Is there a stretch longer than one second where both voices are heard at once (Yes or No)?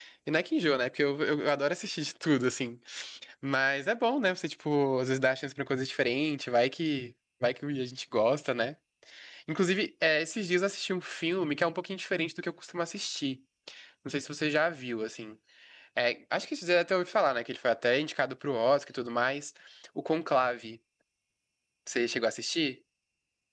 No